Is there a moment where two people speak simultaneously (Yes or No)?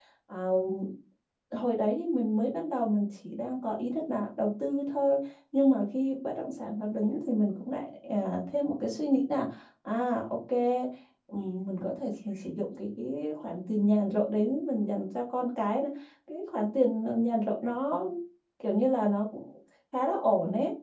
No